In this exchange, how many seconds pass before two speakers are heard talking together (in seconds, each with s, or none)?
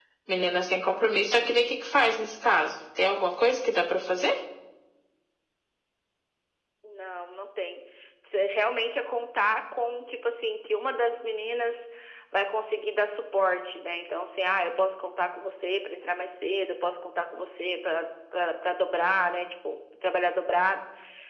none